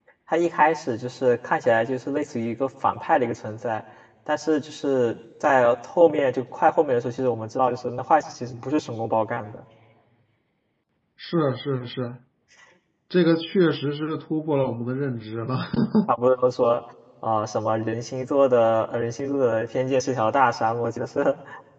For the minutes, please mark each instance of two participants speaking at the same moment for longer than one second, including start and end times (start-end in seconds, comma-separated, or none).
none